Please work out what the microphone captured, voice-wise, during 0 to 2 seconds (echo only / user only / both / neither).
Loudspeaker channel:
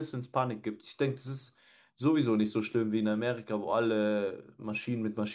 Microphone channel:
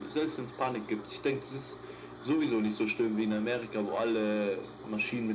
echo only